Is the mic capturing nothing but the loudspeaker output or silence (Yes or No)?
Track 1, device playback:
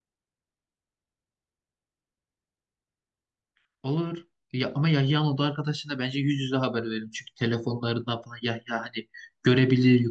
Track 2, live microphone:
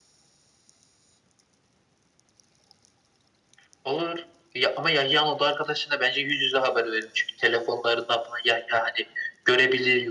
Yes